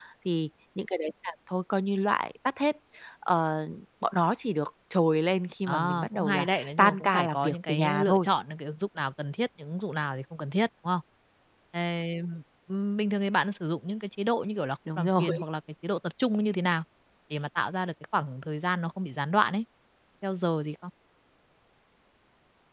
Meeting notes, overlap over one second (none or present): present